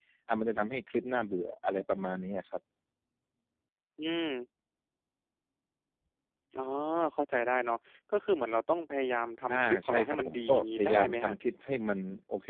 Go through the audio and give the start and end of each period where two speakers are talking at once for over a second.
9.5-11.3

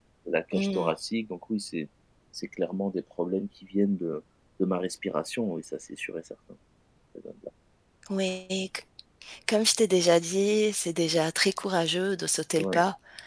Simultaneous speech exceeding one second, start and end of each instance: none

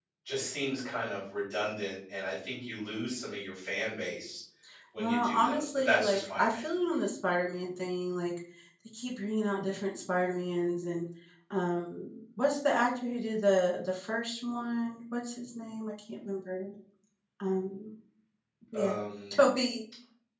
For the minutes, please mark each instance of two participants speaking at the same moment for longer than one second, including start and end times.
5.0-6.6

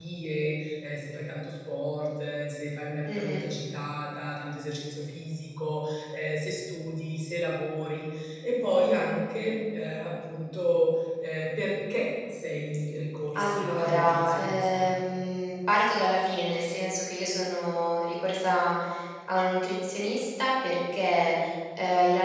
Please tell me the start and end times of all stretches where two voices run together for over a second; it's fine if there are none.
13.3-14.9

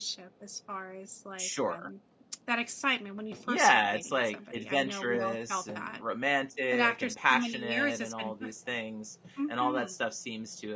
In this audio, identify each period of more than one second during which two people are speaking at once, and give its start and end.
3.5-6.0, 6.7-8.5

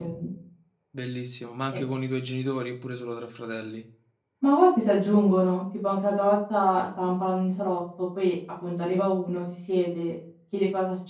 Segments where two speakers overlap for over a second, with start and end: none

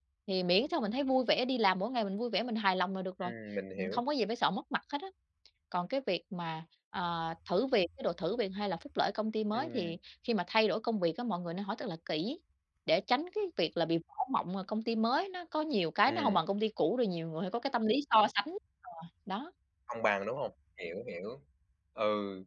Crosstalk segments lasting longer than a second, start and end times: none

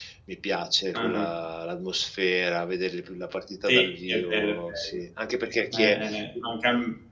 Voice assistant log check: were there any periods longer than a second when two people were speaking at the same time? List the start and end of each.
3.7-5.0

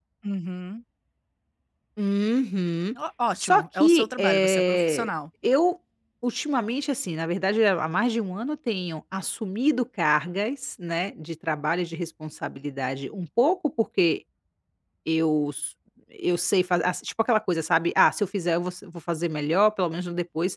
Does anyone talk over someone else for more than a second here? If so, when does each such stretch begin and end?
3.4-5.1

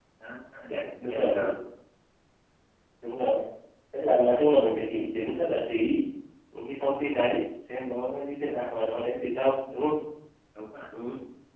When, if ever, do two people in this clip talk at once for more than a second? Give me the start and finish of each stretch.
none

